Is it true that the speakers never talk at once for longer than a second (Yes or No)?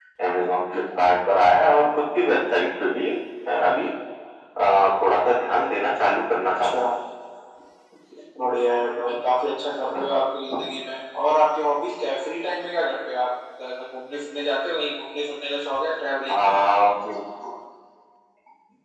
Yes